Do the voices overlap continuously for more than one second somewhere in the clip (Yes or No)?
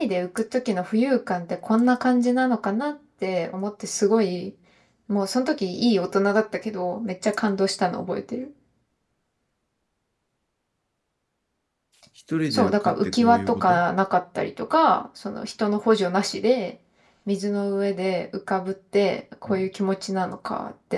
Yes